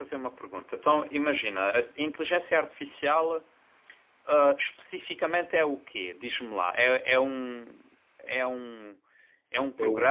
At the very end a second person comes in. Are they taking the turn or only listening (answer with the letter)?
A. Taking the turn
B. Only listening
B